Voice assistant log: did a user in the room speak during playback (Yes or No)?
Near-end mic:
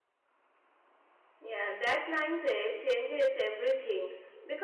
Yes